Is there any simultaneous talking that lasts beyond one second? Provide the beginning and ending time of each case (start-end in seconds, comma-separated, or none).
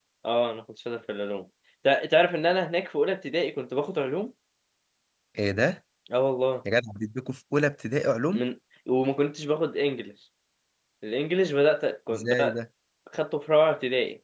none